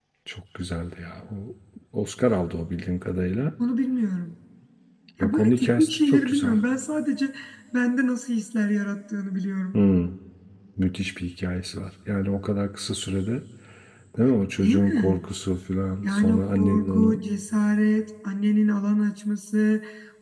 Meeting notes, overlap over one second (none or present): present